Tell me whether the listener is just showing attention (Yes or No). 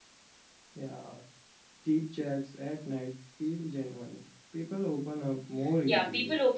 No